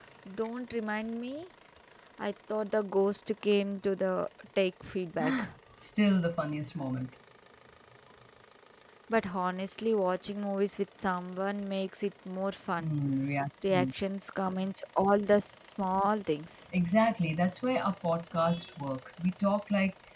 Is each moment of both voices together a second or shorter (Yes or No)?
Yes